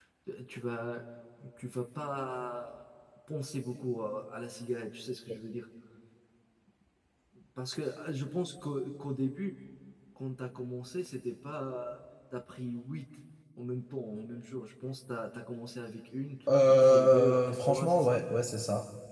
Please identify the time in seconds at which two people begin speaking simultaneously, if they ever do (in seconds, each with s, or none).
16.5 s